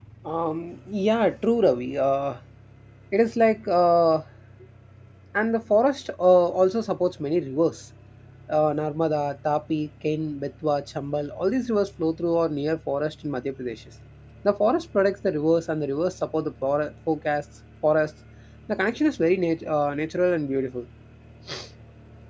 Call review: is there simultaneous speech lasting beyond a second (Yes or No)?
No